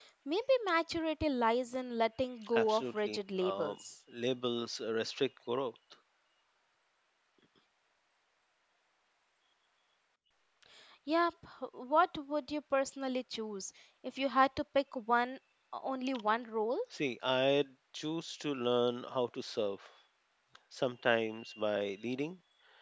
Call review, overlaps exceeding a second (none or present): present